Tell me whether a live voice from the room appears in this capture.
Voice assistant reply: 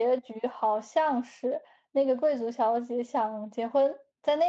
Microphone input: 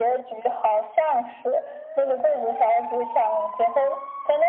No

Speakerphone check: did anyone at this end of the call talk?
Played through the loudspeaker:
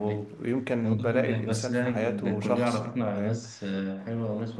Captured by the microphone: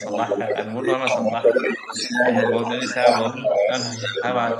Yes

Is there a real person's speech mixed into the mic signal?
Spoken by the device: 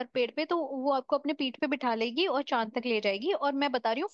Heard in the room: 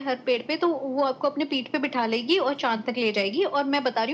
No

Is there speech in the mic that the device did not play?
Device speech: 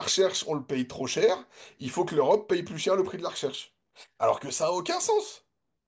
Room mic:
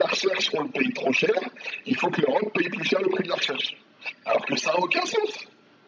No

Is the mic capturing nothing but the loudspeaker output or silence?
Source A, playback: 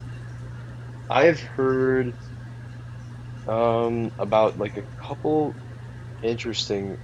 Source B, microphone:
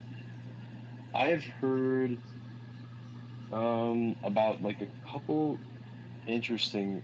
Yes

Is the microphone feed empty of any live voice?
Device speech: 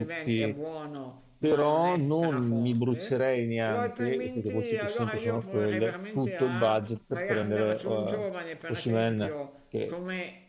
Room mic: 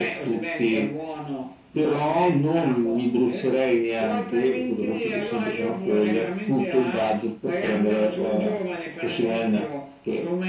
Yes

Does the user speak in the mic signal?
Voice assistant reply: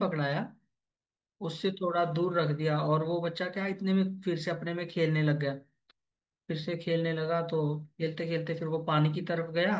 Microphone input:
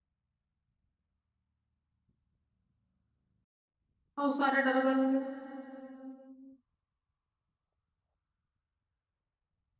Yes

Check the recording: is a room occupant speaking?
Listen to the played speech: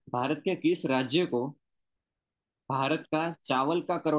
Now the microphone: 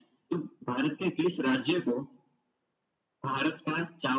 No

